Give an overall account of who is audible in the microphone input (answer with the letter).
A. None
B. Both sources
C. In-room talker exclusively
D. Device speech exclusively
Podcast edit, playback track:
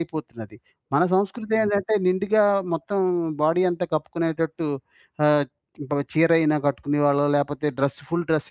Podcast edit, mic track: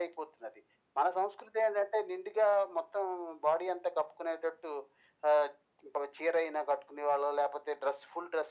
D